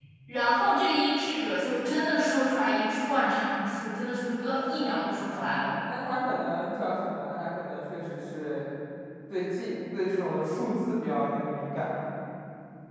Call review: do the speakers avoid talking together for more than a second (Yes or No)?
Yes